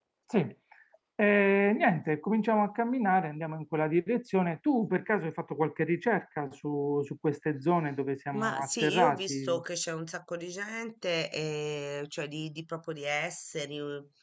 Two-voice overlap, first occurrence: 8.3 s

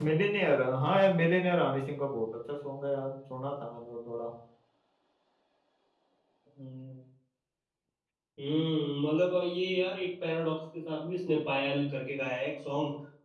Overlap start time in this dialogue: none

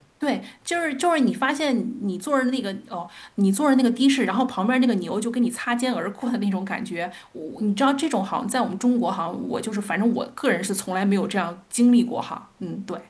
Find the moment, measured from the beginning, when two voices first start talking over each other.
none

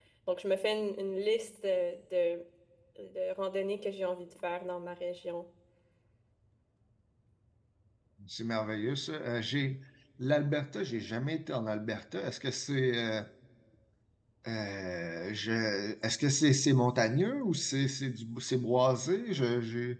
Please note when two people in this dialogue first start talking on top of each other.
none

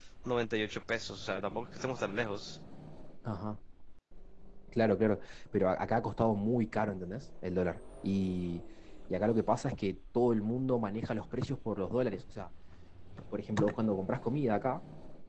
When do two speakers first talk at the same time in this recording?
none

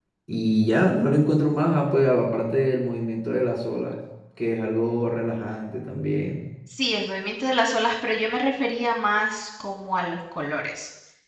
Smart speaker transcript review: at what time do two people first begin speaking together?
none

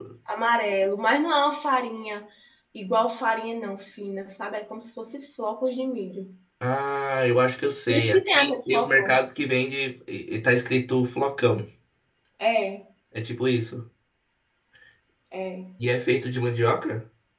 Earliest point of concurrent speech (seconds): 7.9 s

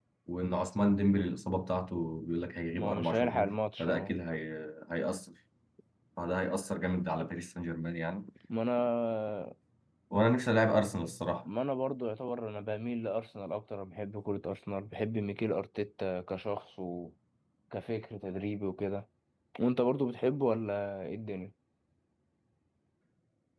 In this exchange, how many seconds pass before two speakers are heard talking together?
2.7 s

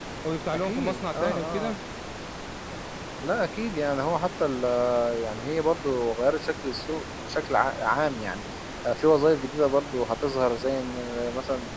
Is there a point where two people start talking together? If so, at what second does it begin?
0.5 s

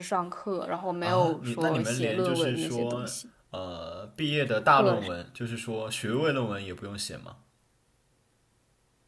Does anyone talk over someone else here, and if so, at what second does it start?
1.0 s

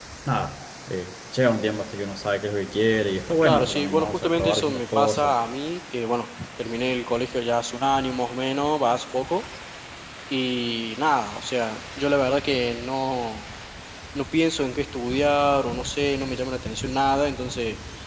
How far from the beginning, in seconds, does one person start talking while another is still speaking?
3.4 s

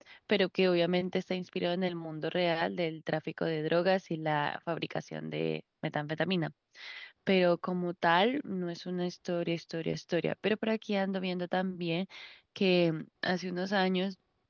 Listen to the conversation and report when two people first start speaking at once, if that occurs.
none

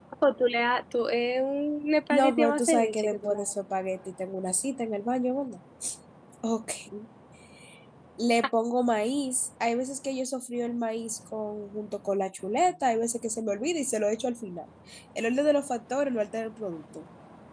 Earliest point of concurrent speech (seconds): 2.1 s

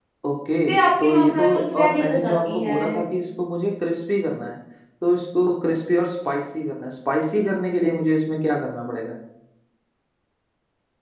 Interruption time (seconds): 1.0 s

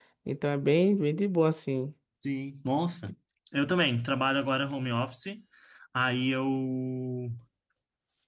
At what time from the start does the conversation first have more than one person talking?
none

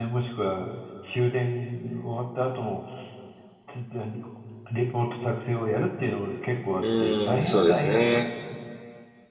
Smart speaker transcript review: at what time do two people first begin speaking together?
6.8 s

